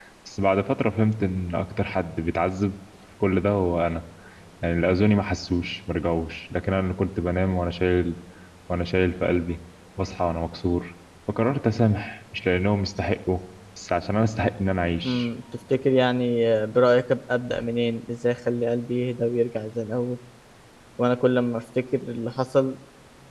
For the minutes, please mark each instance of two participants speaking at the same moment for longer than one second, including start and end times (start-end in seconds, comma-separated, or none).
none